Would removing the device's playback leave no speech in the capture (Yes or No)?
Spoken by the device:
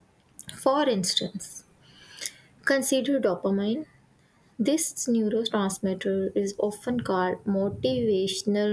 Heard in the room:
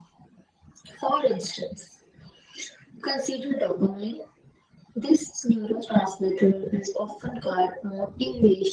Yes